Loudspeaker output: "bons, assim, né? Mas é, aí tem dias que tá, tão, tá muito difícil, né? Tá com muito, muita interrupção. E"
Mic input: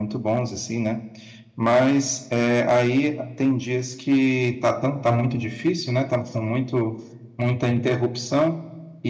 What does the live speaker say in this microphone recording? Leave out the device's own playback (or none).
none